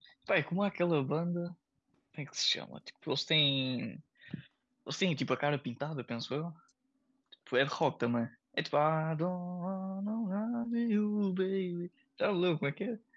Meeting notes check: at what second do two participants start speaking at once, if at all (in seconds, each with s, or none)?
none